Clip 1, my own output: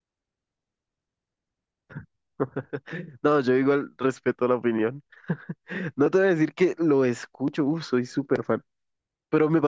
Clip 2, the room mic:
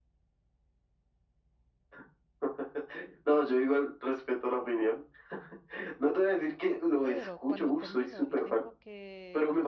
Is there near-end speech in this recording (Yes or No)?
Yes